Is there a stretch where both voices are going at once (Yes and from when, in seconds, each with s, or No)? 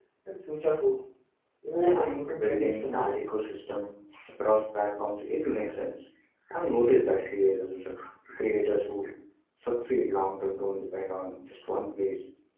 Yes, from 1.8 s